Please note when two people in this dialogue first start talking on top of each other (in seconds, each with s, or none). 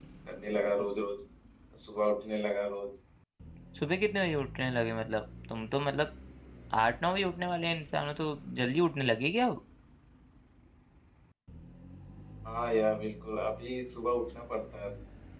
none